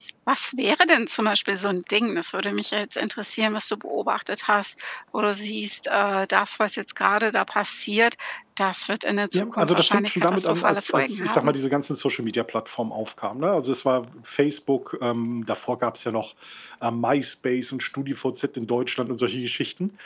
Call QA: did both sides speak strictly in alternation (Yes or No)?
No